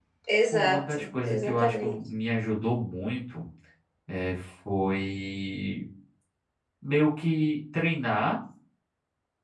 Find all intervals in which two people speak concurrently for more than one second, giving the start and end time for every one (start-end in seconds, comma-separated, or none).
0.5-1.9